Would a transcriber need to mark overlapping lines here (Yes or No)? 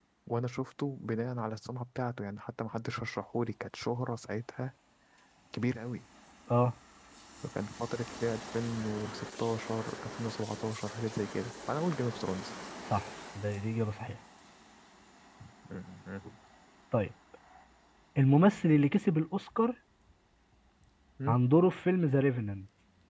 No